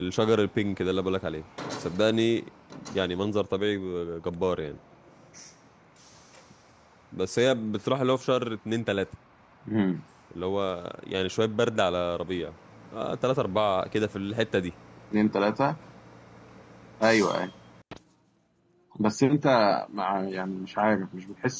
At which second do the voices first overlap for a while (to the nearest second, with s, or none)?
none